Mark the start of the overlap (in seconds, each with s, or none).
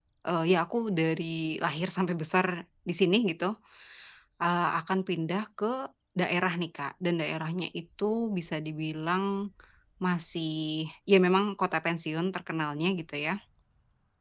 none